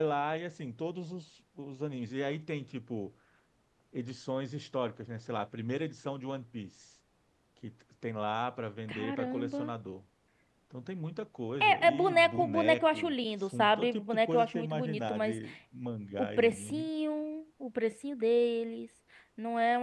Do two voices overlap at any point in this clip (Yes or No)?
Yes